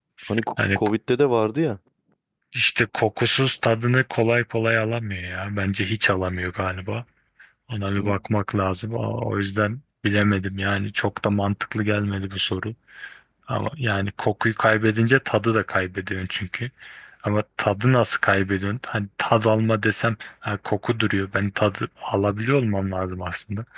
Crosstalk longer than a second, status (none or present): none